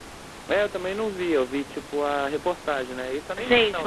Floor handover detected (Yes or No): Yes